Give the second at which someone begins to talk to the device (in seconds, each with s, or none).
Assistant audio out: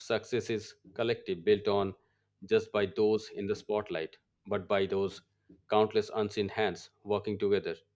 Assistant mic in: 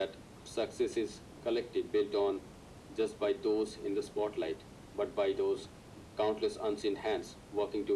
none